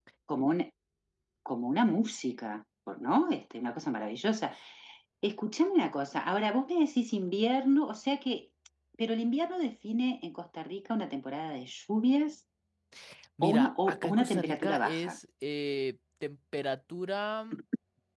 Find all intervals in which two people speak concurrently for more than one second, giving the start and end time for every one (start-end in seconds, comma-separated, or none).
13.4-15.2